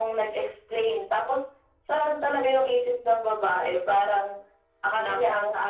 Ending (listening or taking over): listening